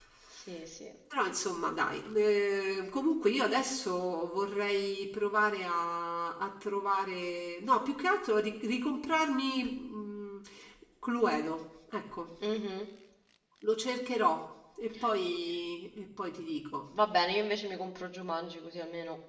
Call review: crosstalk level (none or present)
none